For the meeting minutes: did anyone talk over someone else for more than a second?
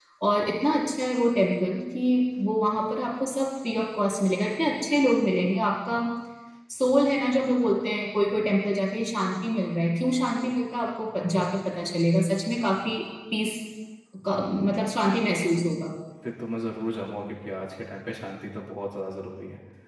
No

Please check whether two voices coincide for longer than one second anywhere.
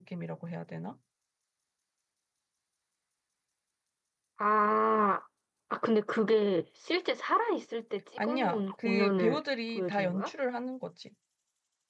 Yes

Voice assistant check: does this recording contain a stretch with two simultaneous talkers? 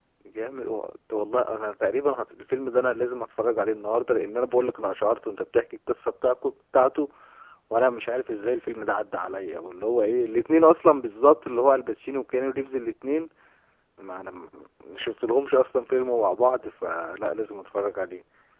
No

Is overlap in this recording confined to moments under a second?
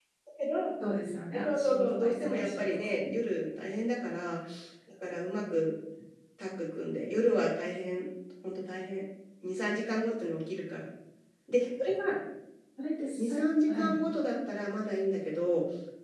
No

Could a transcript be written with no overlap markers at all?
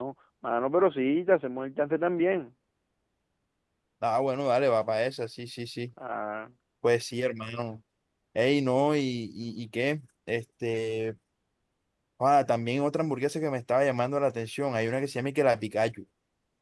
Yes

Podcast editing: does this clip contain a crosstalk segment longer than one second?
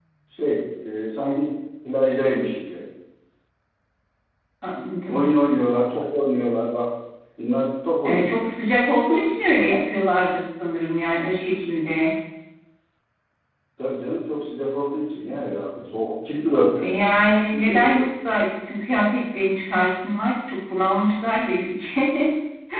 No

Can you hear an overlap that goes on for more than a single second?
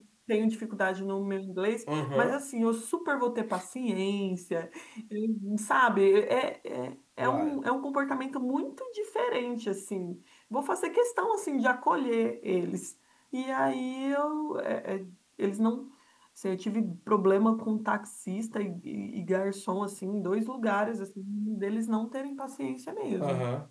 No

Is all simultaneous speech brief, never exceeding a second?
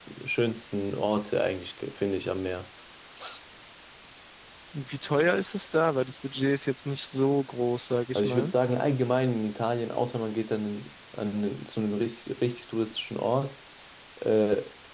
Yes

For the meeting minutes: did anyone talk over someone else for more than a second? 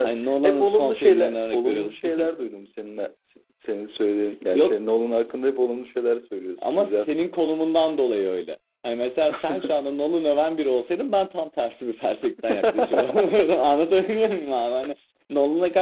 Yes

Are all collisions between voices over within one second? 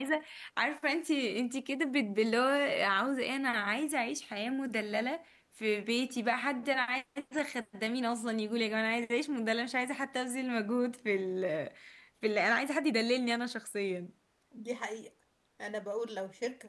Yes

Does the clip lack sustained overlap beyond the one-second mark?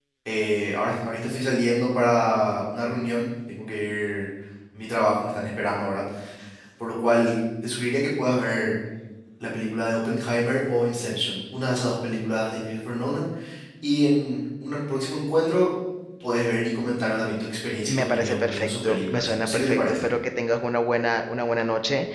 No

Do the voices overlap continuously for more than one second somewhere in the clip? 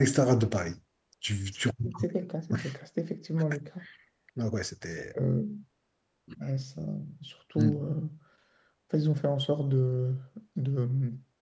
No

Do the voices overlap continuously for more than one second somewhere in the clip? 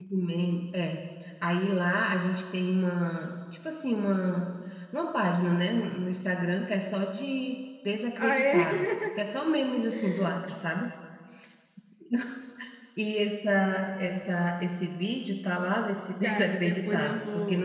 Yes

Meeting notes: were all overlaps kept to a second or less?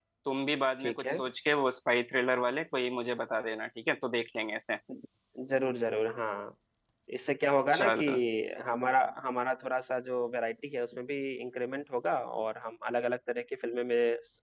Yes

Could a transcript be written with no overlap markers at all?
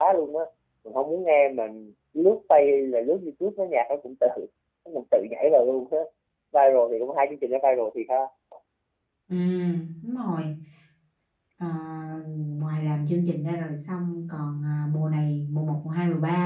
Yes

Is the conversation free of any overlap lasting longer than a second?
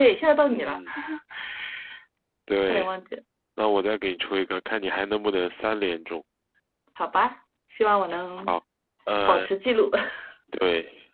Yes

